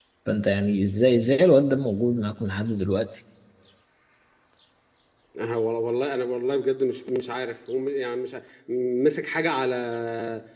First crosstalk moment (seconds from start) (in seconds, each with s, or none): none